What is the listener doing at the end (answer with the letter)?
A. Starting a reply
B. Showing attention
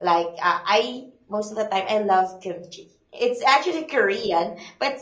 B